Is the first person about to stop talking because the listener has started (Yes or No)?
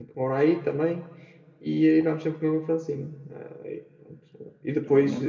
No